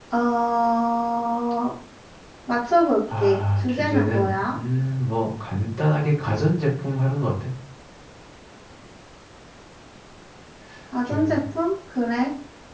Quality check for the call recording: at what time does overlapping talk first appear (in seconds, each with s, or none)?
3.2 s